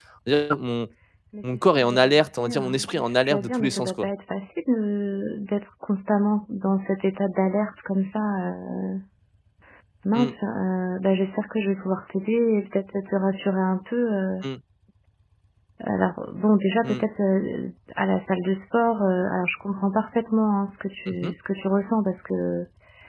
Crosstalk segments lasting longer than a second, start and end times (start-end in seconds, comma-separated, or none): 1.4-4.1